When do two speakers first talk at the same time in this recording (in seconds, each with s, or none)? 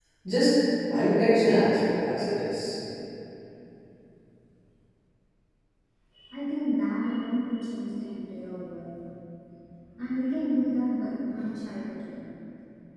none